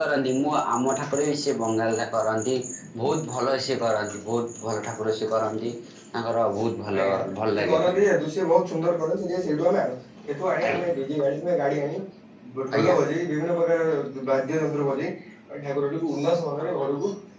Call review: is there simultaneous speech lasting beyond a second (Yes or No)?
No